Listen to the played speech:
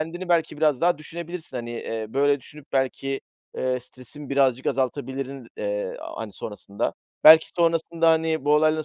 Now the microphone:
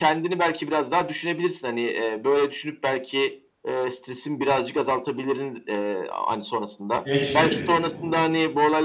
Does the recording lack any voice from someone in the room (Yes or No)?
No